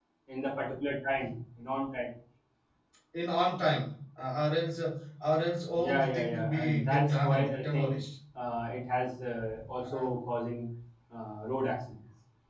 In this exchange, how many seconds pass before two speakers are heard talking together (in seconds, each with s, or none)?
5.8 s